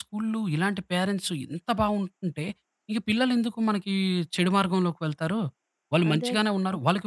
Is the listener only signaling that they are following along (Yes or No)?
Yes